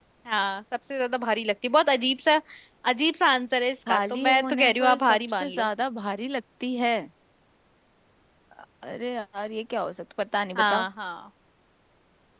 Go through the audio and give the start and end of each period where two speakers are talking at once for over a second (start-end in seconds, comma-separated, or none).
3.9-5.7